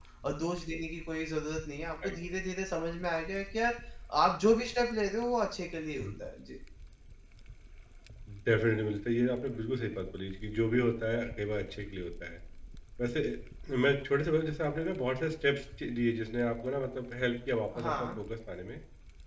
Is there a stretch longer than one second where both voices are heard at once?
No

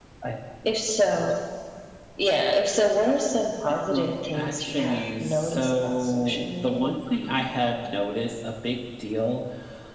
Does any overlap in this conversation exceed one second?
Yes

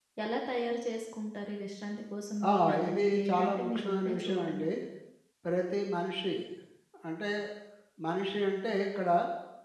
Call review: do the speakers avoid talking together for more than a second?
No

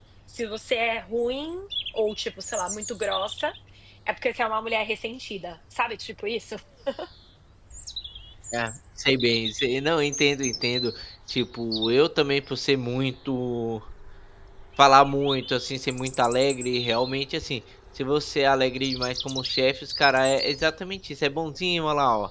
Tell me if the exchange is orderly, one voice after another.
Yes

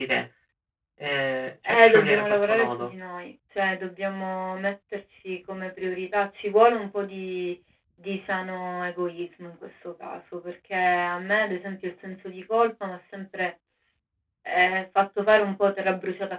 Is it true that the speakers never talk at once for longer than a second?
No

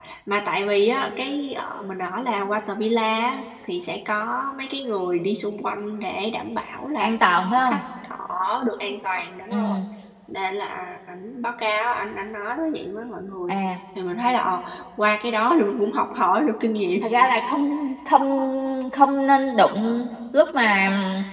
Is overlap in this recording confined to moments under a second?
Yes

